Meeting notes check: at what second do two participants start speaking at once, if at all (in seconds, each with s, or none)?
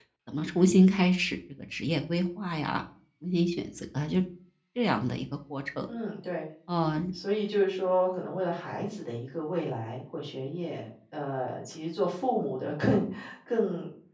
none